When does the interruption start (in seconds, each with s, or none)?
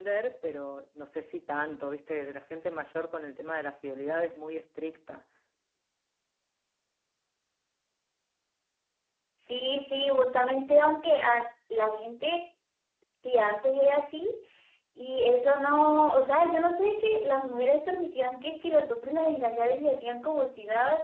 none